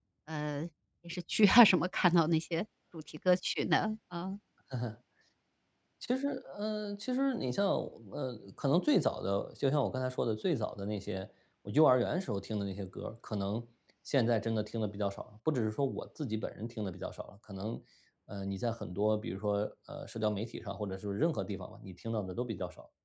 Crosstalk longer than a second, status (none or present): none